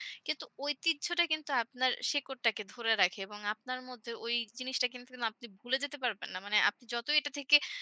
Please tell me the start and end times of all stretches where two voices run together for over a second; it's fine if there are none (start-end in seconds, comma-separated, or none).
none